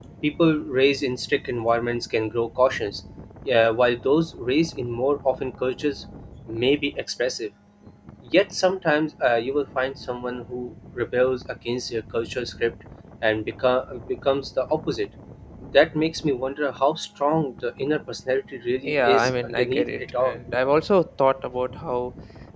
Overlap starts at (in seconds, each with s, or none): 18.9 s